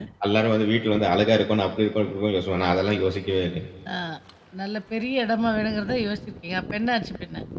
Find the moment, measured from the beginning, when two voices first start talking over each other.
none

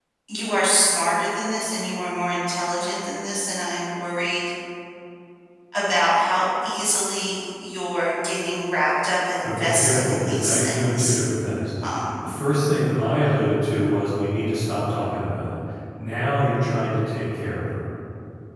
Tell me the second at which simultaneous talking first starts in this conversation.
9.4 s

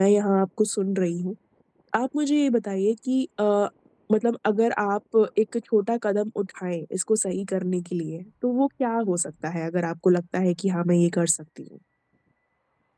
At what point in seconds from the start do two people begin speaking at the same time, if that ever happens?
none

